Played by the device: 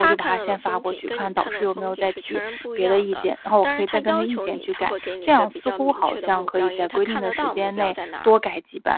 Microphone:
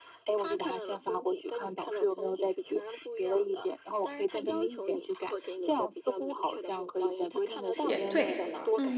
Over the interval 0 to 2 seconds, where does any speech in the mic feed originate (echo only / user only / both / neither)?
echo only